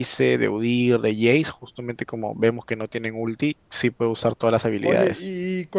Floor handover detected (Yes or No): Yes